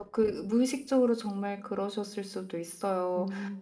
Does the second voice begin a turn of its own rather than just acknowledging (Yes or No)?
No